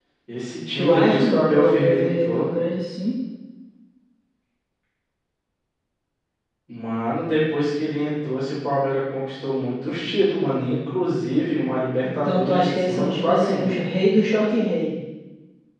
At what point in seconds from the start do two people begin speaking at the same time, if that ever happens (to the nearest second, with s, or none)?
1 s